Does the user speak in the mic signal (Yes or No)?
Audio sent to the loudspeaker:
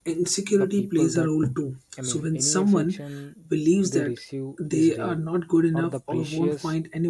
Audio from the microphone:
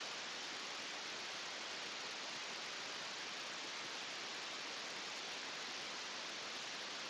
No